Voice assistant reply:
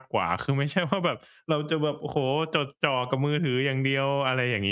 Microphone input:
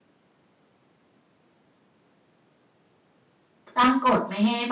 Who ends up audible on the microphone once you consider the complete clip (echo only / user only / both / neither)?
user only